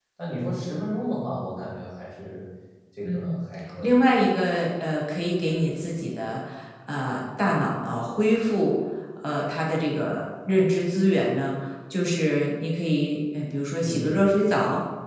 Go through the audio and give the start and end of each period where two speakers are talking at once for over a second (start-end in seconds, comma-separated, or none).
none